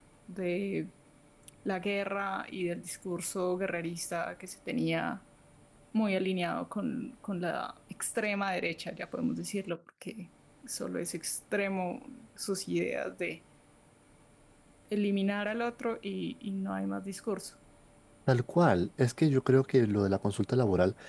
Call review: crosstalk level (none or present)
none